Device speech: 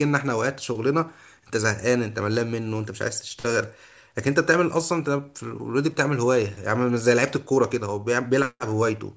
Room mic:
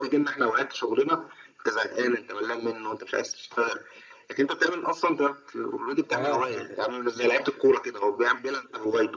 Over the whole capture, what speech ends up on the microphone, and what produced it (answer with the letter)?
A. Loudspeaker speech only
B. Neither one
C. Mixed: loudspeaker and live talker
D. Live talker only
C